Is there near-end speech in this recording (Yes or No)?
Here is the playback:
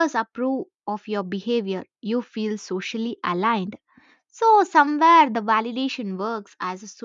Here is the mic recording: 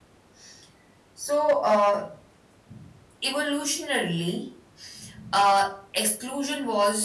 Yes